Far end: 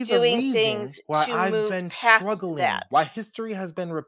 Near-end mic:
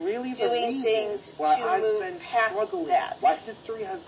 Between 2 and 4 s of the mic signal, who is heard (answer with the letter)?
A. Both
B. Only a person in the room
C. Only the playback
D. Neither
C